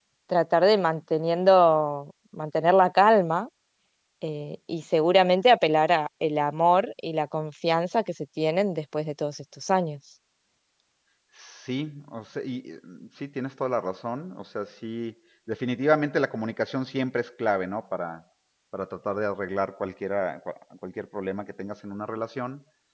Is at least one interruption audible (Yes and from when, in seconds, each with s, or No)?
No